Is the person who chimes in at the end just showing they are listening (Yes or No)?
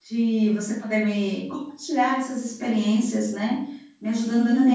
Yes